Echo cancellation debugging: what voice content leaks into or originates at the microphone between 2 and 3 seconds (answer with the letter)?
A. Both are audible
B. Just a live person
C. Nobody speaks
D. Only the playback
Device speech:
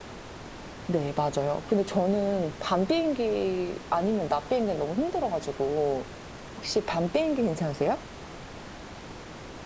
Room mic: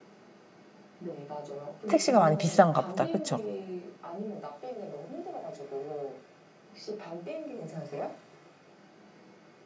A